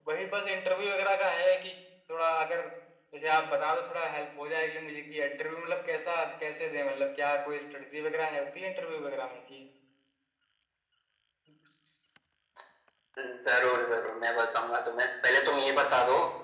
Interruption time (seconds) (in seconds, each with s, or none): none